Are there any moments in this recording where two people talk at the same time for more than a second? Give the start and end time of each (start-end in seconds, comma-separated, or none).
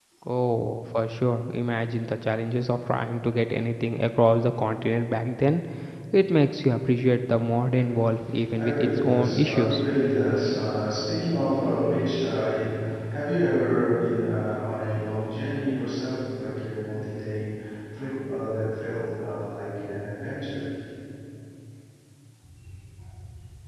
8.6-9.8